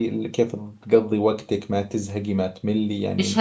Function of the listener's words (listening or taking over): taking over